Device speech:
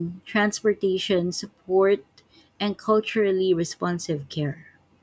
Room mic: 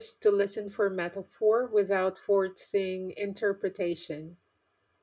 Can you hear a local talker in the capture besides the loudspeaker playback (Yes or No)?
Yes